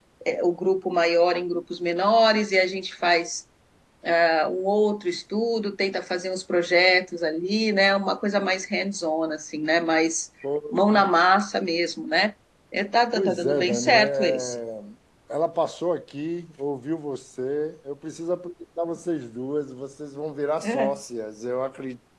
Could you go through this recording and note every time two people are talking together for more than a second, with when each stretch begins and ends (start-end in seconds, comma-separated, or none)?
13.1-14.6